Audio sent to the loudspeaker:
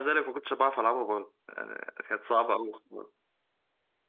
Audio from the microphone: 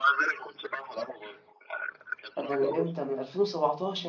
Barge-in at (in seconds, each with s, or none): 2.4 s